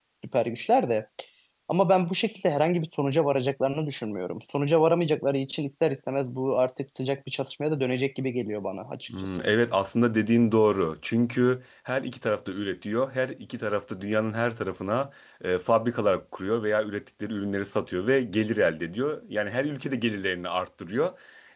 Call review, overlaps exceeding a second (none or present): none